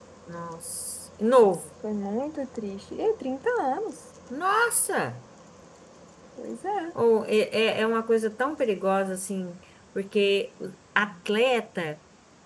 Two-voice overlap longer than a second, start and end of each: none

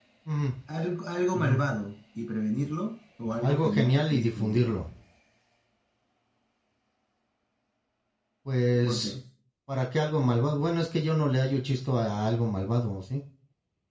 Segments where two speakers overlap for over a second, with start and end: 3.4-4.8

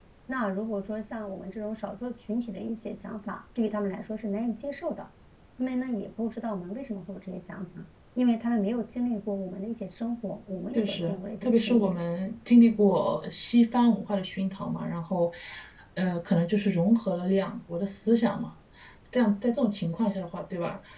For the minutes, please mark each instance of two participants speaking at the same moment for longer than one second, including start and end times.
10.7-11.9

